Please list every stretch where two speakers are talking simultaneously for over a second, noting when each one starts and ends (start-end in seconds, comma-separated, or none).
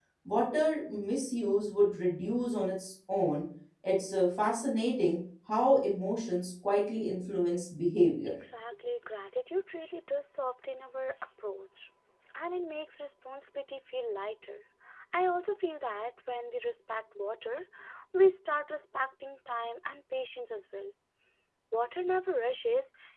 none